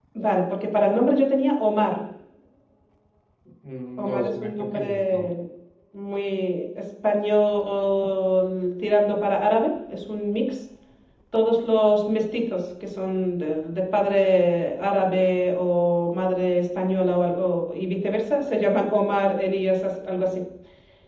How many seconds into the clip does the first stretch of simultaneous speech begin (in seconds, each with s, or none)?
4.0 s